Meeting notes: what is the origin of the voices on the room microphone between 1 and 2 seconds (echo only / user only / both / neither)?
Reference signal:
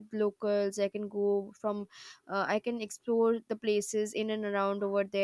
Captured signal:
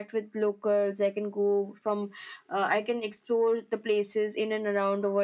echo only